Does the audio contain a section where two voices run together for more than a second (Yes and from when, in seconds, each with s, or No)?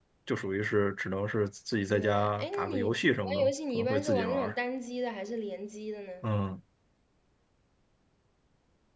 Yes, from 1.9 s